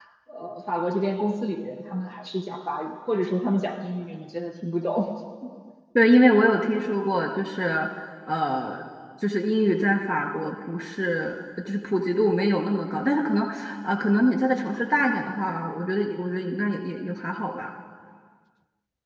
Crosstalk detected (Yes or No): No